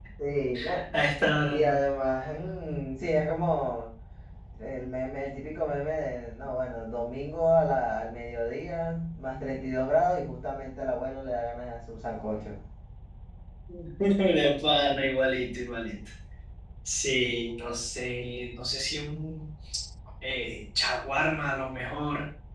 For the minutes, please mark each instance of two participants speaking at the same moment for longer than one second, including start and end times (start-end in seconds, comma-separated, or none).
none